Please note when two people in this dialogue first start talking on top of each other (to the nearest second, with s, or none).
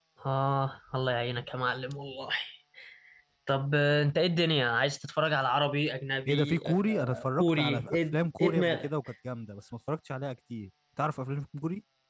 6 s